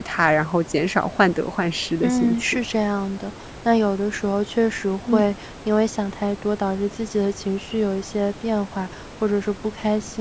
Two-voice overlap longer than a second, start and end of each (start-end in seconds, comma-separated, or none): none